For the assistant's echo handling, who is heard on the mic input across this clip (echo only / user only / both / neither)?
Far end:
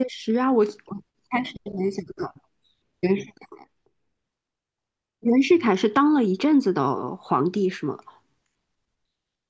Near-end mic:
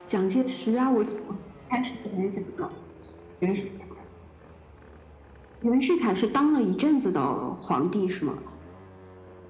echo only